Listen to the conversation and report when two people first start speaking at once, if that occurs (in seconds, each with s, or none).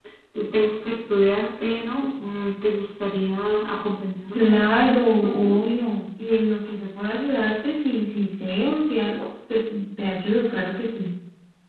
4.3 s